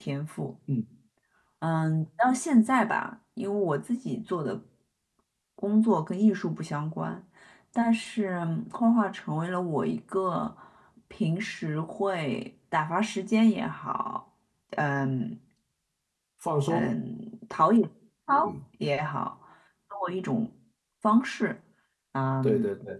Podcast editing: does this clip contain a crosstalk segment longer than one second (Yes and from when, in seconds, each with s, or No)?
No